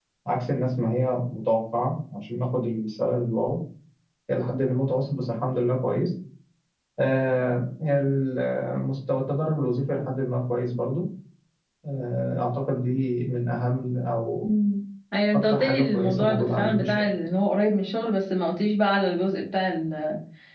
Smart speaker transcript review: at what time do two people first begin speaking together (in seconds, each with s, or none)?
15.4 s